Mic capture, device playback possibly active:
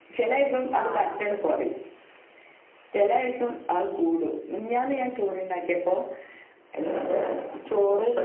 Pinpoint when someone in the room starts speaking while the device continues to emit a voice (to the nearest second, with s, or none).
1 s